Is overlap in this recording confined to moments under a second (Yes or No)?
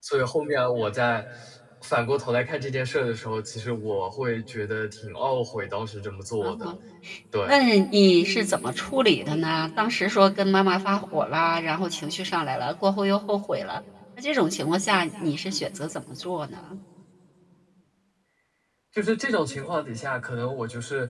Yes